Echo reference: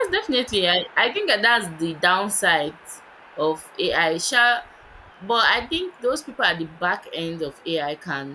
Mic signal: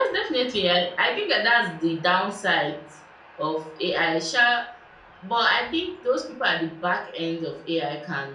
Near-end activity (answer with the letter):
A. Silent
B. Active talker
A